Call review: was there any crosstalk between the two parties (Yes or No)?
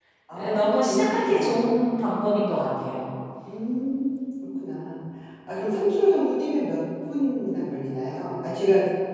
Yes